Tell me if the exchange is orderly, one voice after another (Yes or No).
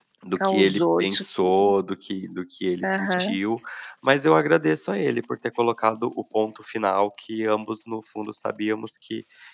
No